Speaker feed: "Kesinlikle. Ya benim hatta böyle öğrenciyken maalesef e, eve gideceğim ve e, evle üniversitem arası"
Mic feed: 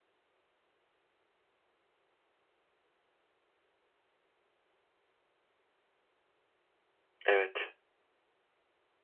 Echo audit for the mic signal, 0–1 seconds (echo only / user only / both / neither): neither